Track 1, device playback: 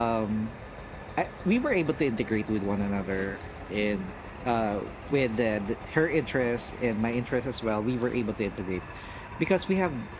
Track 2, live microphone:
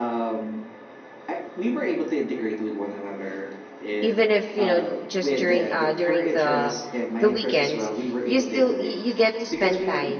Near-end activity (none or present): present